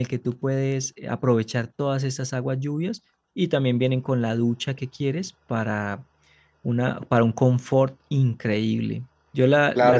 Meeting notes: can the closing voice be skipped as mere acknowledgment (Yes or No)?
No